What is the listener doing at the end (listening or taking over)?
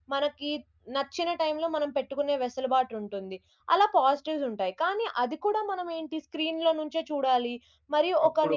listening